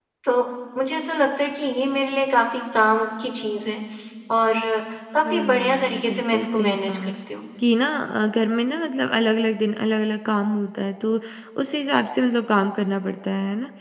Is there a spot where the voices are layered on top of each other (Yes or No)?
Yes